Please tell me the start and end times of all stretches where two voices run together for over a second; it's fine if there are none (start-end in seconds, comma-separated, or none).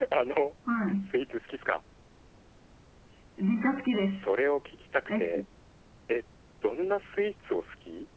none